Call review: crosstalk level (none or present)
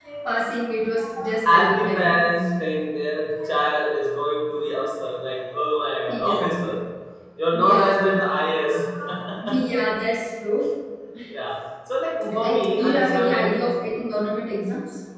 present